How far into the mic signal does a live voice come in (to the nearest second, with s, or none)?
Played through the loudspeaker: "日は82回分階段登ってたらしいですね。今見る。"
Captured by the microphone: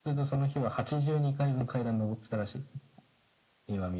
none